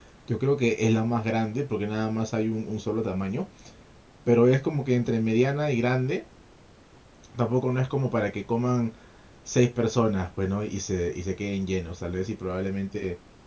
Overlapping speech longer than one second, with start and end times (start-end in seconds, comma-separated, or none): none